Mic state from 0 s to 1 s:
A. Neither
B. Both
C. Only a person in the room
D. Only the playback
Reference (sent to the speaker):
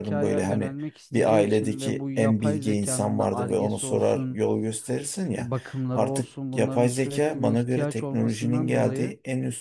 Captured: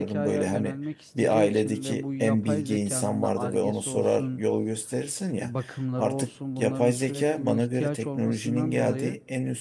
D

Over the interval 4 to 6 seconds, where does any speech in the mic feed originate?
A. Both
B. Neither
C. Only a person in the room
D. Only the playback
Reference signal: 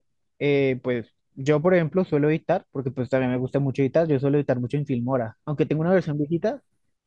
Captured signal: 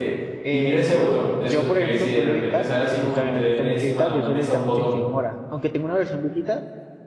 A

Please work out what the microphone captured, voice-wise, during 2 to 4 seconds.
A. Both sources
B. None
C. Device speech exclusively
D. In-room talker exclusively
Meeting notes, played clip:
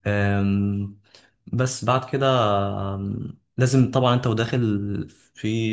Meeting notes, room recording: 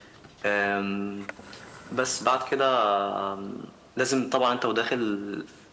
C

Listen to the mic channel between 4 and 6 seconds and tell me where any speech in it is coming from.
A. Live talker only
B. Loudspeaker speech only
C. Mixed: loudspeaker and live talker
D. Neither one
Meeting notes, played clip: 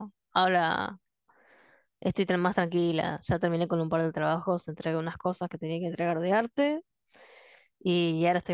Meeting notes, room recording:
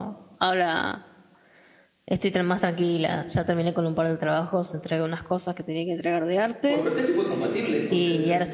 B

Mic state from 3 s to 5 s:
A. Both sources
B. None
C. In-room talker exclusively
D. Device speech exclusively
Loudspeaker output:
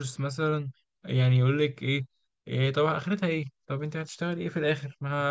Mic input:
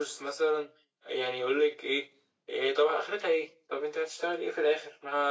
D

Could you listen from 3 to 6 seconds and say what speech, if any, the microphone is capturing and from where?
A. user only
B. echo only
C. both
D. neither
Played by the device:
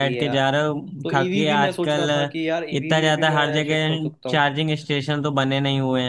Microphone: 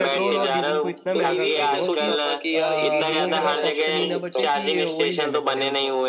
C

